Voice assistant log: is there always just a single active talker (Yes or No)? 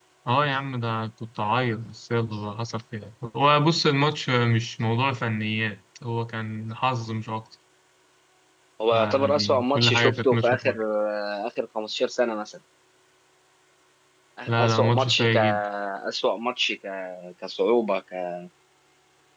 No